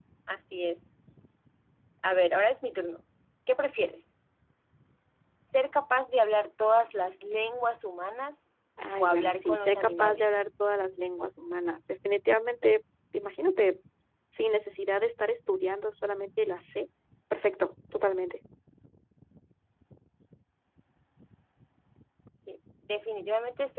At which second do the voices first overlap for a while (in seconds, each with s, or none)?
9.0 s